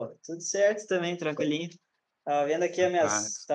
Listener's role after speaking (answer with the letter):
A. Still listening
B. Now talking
A